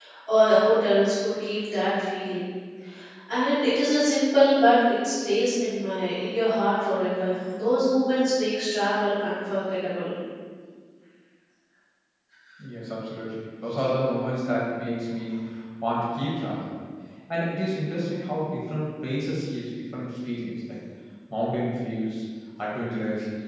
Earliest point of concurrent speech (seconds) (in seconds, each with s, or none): none